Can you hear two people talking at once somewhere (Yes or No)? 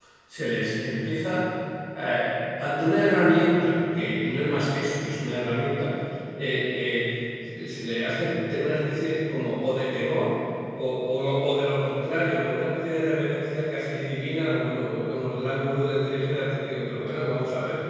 No